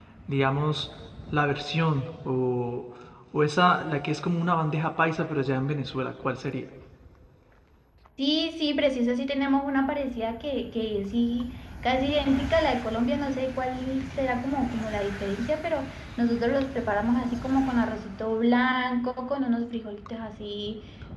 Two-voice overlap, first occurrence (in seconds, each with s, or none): none